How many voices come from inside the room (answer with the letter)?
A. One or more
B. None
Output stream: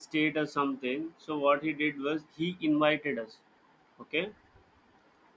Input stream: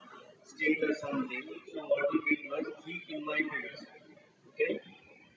B